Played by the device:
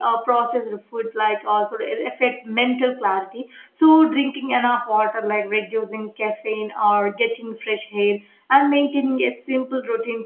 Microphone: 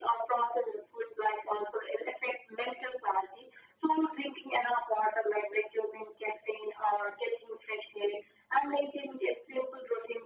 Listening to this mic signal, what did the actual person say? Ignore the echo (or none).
none